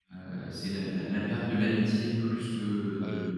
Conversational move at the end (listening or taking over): taking over